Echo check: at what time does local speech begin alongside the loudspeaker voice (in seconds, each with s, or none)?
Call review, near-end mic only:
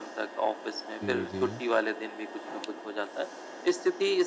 1.0 s